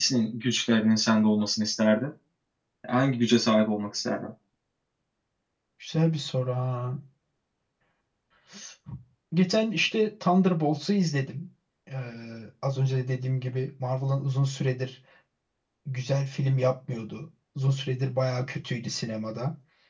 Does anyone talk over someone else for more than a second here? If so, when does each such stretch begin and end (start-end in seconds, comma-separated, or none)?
none